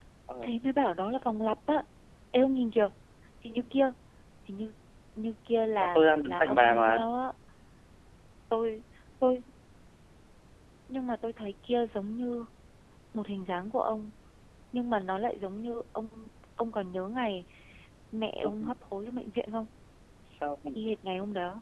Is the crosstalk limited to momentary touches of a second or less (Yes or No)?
No